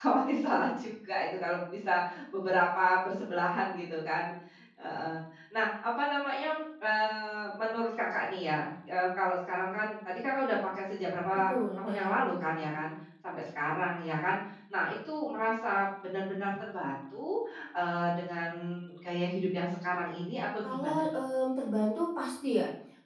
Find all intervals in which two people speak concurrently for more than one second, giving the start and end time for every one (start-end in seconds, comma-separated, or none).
11.3-12.8